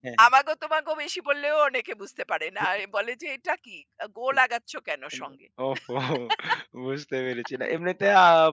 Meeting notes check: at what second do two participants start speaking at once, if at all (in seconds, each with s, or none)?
none